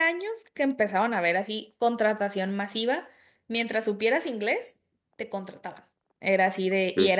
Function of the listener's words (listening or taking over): listening